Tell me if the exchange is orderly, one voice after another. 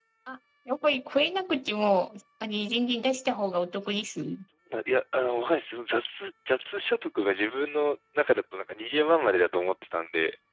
Yes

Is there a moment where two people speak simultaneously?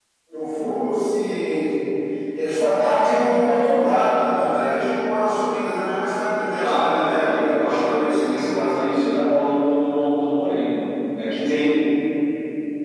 Yes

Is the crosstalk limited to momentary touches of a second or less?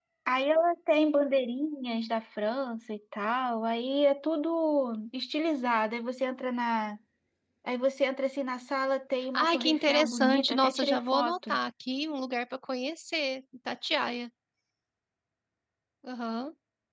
No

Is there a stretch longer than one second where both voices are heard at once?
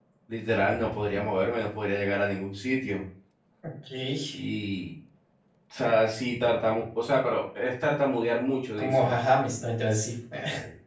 No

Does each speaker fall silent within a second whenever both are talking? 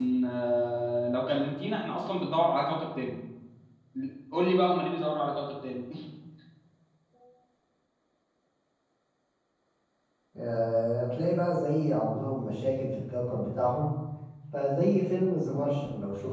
Yes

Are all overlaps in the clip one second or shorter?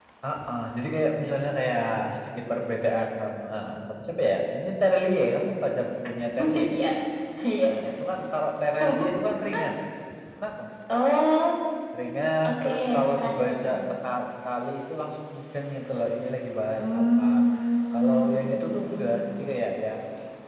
No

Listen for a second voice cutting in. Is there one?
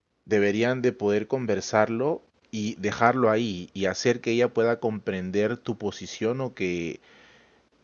No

